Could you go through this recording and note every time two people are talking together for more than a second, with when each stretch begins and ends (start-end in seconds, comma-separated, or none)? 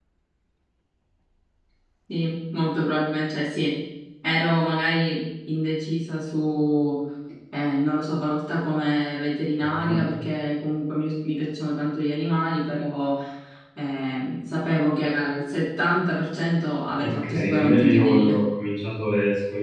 17.0-18.4